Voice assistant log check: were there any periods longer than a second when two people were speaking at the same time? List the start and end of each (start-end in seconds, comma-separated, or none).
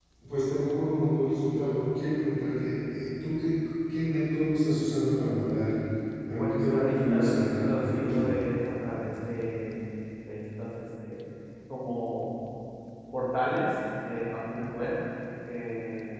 6.4-8.3